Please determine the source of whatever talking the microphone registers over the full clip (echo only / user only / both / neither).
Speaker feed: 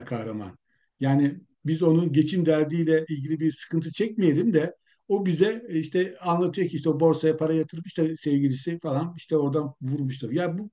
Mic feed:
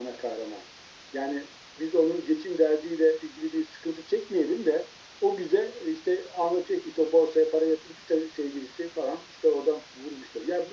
echo only